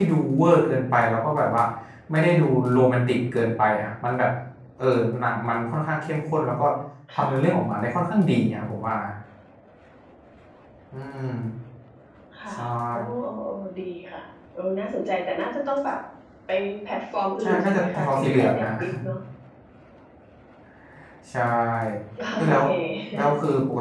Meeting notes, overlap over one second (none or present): present